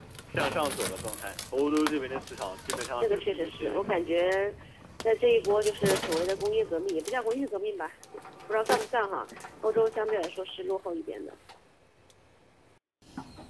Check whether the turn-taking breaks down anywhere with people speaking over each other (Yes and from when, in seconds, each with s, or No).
Yes, from 3.0 s